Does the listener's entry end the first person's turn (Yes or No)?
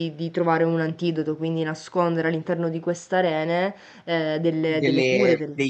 Yes